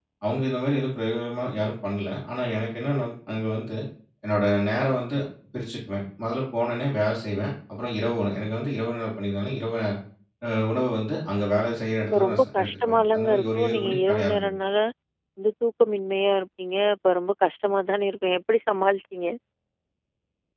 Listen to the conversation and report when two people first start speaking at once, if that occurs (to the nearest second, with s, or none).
12 s